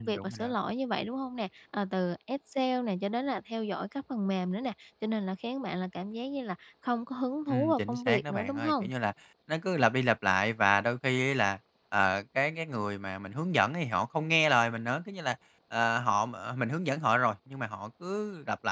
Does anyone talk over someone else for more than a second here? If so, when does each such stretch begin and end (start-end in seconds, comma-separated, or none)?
7.5-8.9